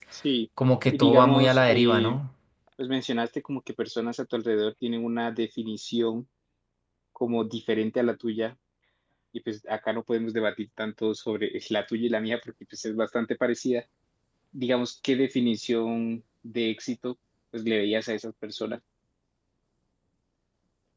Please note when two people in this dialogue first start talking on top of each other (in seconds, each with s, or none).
0.9 s